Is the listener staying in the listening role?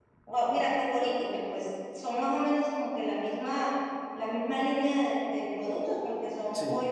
Yes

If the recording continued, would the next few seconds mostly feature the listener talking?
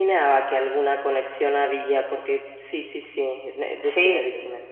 Yes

